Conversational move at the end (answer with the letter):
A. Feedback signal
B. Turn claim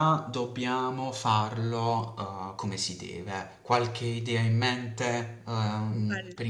A